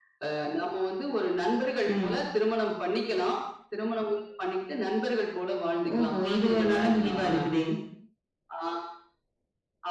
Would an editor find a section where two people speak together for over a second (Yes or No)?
Yes